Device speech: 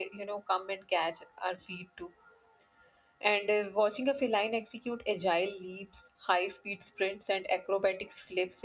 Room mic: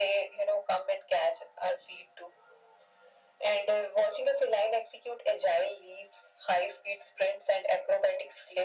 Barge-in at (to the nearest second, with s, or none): none